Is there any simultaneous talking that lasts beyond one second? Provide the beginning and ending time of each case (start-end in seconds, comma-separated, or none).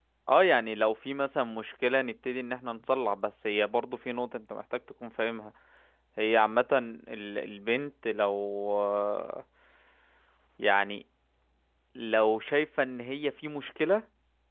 none